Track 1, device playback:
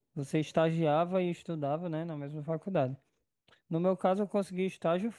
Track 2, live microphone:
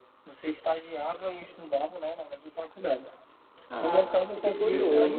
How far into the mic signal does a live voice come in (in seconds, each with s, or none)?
3.7 s